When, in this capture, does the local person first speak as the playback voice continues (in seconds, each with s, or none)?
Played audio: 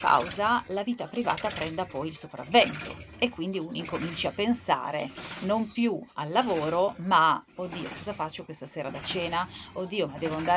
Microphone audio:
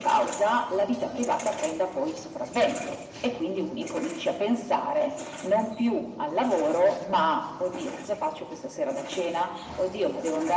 none